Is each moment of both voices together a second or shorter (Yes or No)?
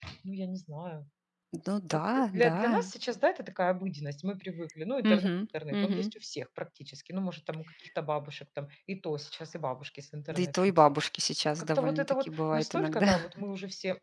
No